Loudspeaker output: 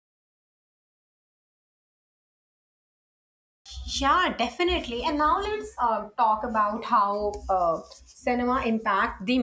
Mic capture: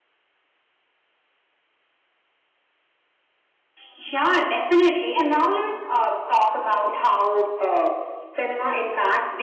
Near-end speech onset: none

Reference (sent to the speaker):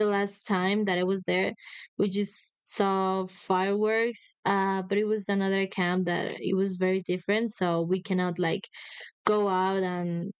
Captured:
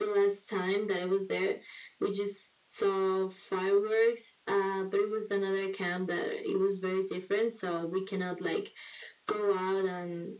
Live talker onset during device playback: none

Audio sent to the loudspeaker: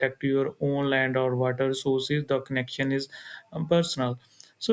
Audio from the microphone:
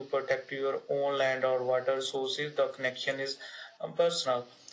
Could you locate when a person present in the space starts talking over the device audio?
none

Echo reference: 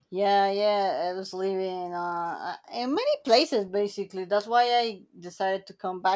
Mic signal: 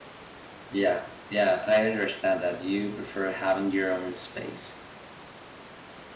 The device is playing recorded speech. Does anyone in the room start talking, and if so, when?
1 s

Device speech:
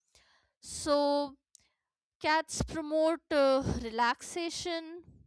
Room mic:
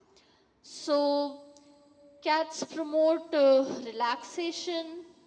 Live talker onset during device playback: none

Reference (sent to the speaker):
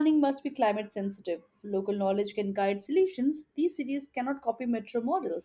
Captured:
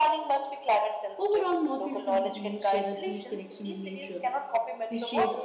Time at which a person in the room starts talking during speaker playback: 1 s

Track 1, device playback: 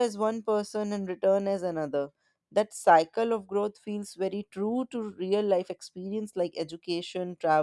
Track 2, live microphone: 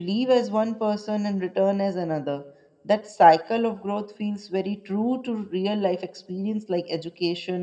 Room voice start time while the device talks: none

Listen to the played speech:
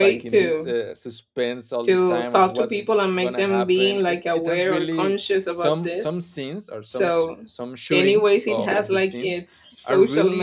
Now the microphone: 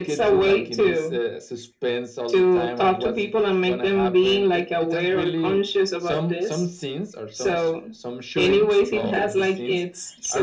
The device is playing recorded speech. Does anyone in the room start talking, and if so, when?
none

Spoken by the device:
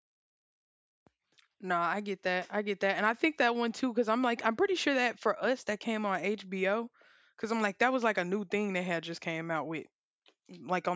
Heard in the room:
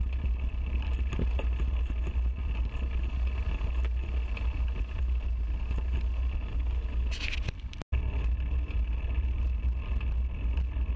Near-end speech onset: none

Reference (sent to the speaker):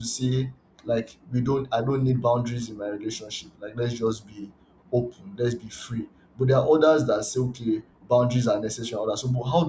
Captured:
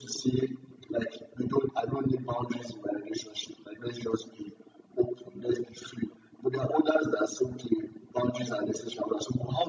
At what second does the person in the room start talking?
none

